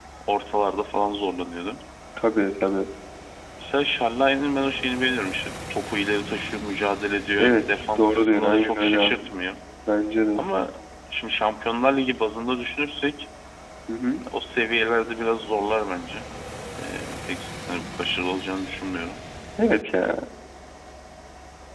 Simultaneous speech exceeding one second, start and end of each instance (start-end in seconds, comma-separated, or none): 7.4-9.2